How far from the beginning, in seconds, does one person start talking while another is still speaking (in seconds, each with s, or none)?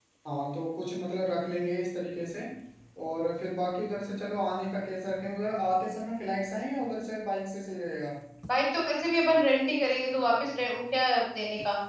none